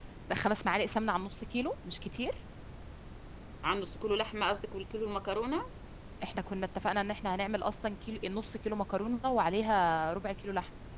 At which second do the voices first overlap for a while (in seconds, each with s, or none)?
none